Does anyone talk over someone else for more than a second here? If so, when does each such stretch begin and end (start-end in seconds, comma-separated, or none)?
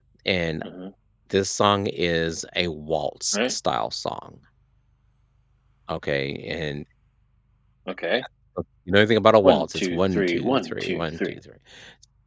9.4-11.3